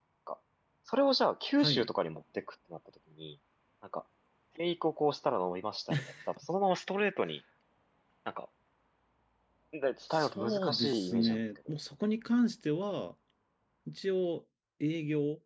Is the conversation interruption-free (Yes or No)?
No